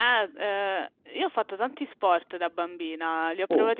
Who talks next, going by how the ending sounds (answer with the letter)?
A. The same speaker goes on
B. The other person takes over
A